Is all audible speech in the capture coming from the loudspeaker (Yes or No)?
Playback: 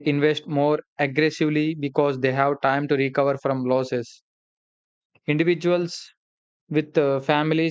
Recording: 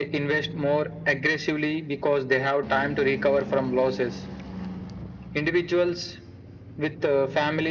Yes